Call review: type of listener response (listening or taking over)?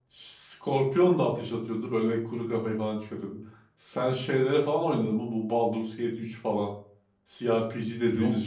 listening